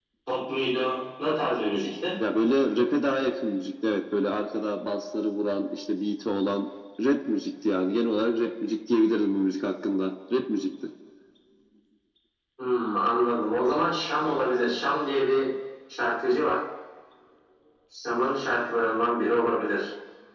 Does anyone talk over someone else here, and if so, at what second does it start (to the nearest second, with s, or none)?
none